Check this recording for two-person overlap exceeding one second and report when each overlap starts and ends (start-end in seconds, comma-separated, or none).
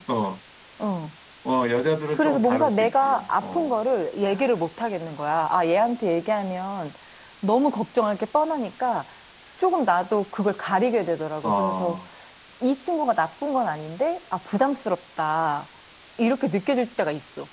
2.1-3.7